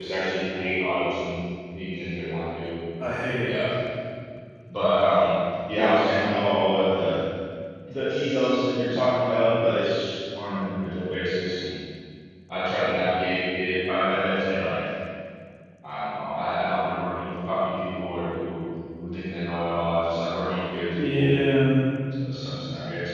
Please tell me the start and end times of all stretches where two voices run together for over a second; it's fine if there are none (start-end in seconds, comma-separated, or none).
none